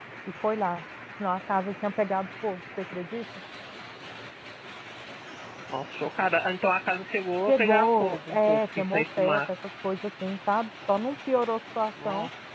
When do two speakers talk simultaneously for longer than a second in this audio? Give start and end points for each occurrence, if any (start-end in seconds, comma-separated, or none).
7.5-9.4